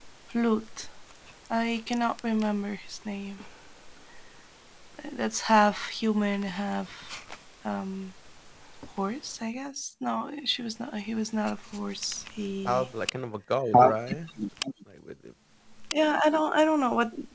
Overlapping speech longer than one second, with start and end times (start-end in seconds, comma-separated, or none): none